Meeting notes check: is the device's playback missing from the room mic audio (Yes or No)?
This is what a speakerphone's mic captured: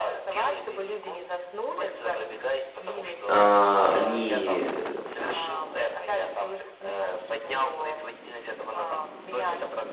No